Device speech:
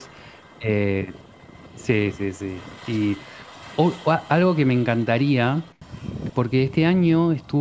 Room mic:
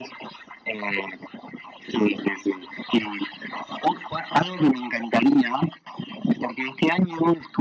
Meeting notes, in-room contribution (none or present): none